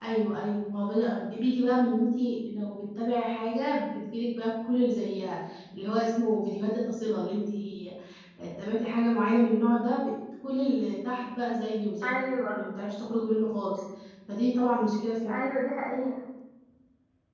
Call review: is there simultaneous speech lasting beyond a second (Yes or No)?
No